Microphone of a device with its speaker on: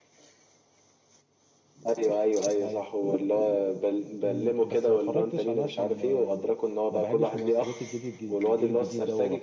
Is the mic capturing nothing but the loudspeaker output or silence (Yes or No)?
No